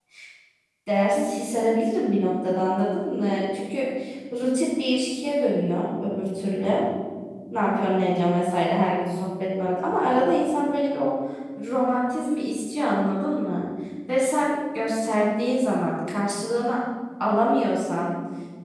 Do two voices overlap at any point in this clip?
No

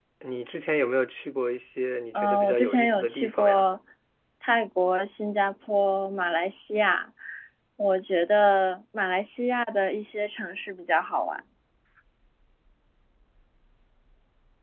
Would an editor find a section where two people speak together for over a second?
Yes, from 2.1 s

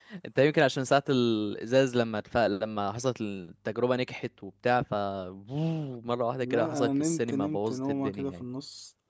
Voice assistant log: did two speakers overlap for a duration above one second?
Yes, from 6.4 s

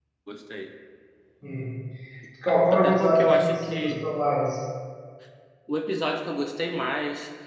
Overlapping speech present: Yes, from 2.5 s

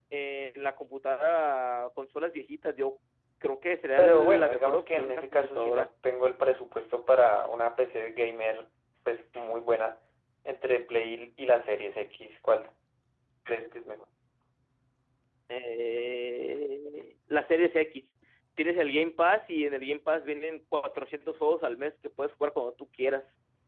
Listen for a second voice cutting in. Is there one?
Yes, from 4.0 s

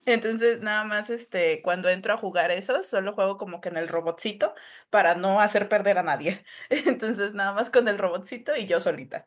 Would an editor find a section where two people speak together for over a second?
No

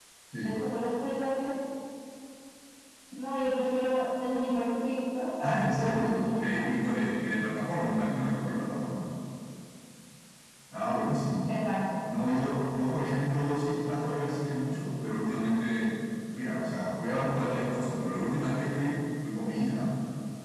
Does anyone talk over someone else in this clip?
Yes, from 5.4 s

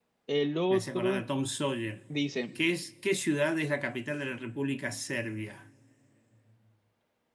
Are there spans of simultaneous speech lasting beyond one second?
No

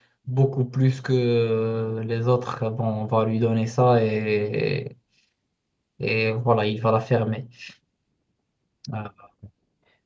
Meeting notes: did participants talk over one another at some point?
No

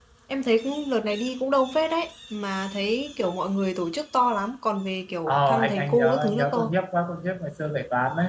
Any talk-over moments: Yes, from 5.3 s

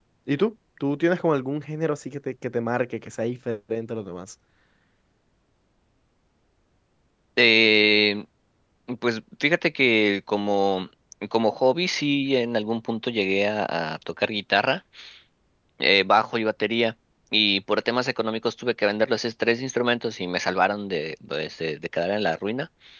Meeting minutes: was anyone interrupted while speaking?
No

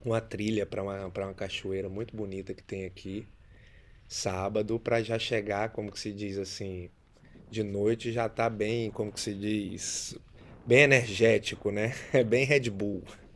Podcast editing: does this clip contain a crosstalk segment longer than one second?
No

